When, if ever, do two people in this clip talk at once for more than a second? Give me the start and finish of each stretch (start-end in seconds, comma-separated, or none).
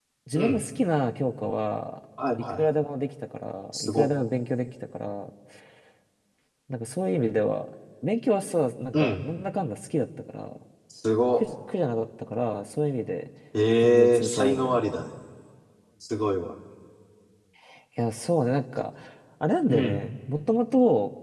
13.8-15.0